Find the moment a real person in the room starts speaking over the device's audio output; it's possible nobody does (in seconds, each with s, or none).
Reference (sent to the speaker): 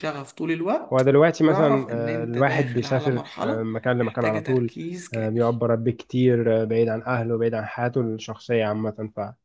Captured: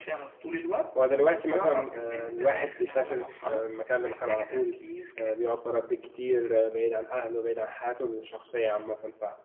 none